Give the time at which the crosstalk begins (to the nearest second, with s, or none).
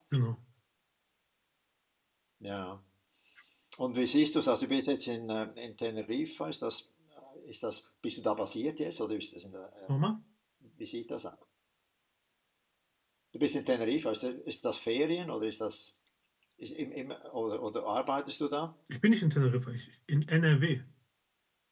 none